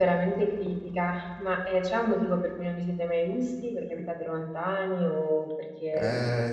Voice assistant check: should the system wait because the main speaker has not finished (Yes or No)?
No